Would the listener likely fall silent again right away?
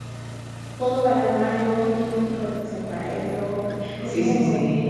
No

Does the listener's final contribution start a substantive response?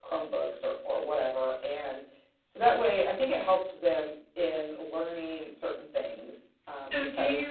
Yes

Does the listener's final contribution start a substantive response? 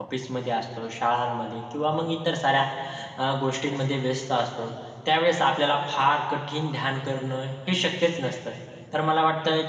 No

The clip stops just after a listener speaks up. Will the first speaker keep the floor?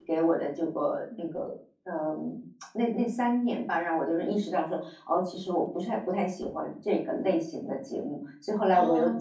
No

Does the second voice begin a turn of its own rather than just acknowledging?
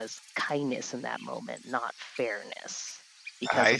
Yes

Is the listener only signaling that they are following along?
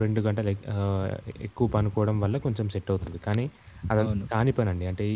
Yes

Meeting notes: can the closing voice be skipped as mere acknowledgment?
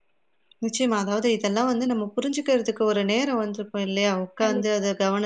Yes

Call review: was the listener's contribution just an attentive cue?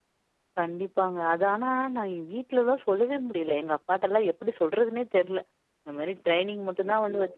Yes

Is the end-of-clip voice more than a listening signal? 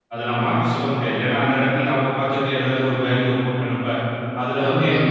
No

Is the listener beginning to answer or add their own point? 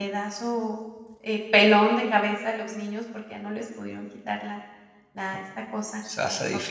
Yes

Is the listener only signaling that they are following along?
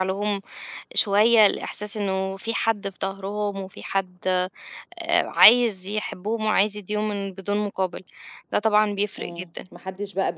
No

